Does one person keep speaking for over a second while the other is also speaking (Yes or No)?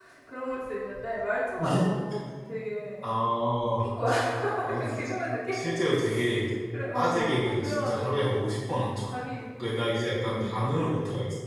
Yes